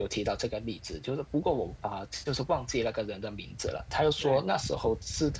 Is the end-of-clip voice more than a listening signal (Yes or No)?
No